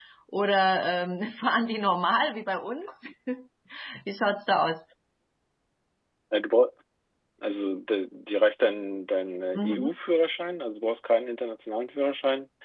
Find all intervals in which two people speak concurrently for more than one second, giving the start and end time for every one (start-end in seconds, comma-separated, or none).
none